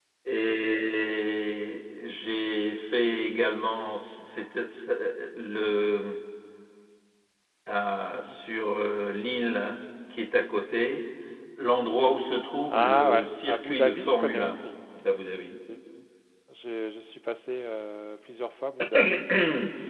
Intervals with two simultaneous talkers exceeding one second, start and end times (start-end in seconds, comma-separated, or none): 12.7-14.6